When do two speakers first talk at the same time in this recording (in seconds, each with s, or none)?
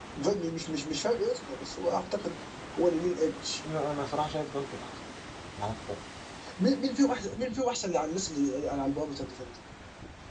none